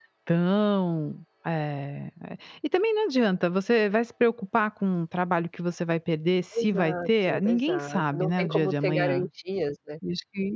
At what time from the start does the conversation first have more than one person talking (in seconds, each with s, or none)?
6.5 s